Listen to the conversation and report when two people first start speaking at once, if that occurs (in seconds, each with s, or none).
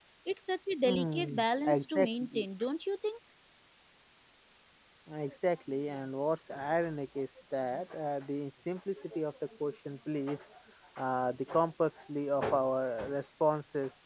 0.8 s